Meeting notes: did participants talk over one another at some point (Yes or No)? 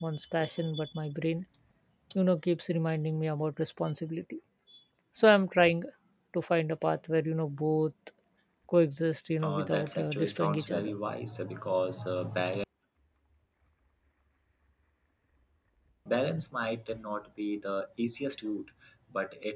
Yes